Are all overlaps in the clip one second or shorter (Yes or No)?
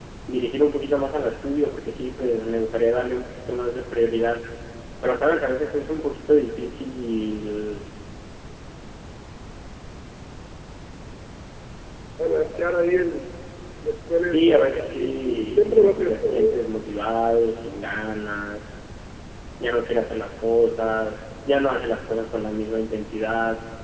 No